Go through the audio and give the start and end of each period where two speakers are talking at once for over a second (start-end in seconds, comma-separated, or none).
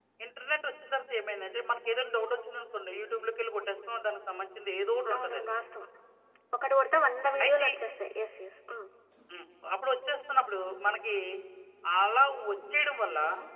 none